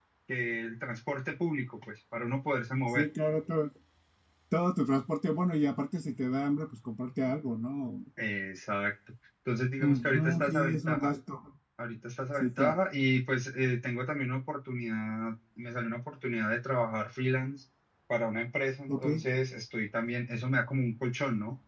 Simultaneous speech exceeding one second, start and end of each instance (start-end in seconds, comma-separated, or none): 9.8-11.1